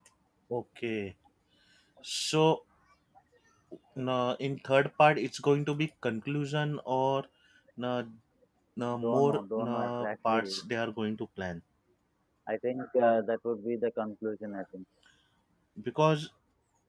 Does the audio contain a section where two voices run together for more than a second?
Yes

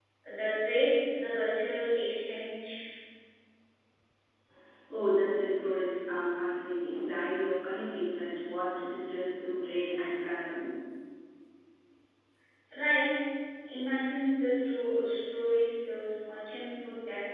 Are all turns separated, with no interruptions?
Yes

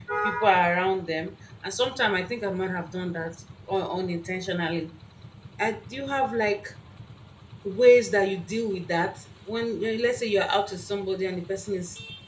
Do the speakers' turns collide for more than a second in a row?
No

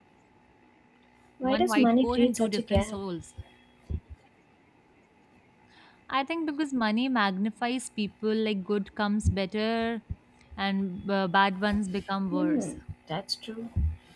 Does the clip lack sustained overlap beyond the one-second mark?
No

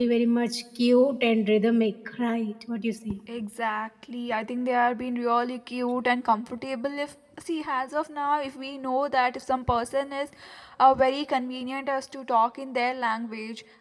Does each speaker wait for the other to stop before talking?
Yes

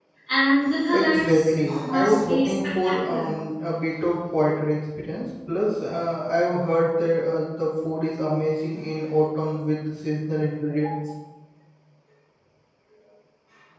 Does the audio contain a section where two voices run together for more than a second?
Yes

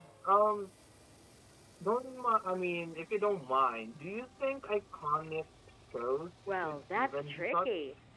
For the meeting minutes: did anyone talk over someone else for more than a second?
Yes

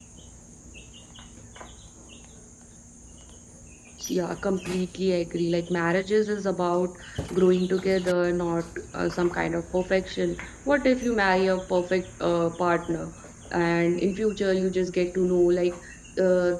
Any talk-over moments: No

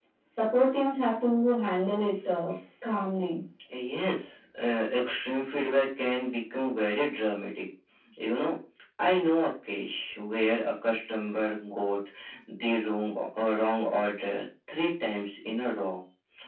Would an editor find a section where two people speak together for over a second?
No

